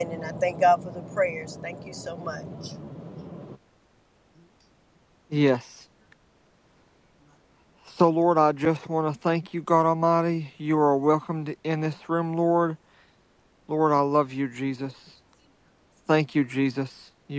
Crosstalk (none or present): none